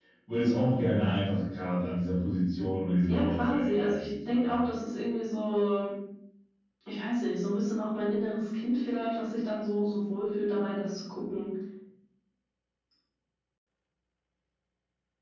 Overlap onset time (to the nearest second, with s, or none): 3 s